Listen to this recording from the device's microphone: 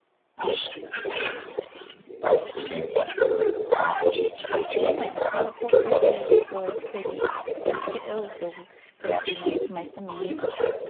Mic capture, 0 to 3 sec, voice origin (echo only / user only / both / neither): echo only